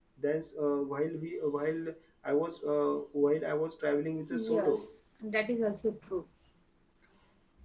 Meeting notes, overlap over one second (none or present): none